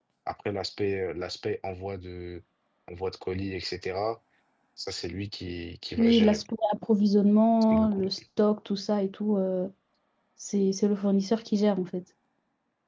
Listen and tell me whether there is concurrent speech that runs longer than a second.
No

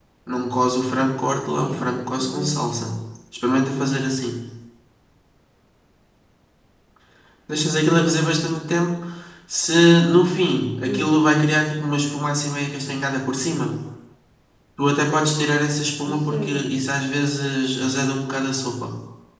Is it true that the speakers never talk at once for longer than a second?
No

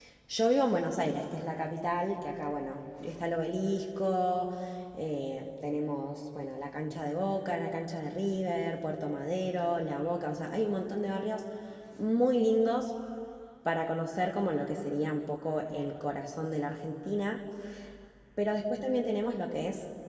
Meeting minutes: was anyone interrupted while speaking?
No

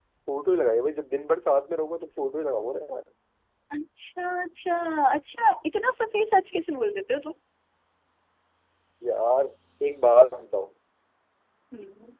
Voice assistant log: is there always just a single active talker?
Yes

